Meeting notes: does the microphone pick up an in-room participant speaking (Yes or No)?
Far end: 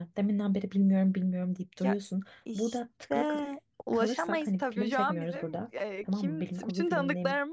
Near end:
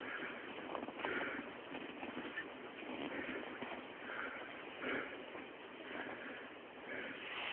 No